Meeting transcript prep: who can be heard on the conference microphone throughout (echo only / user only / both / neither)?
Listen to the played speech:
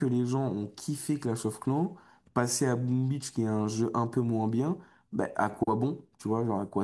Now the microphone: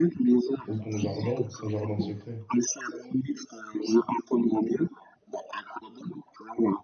both